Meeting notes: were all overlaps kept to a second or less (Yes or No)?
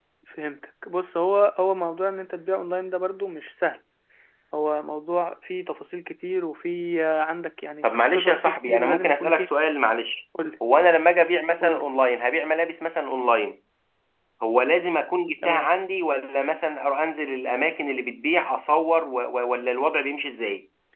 No